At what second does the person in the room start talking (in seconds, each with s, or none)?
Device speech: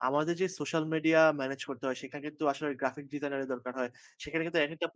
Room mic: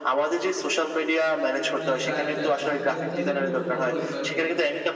1.8 s